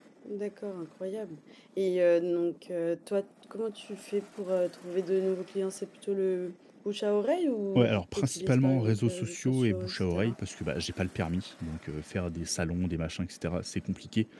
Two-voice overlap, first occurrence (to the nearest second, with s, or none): 8 s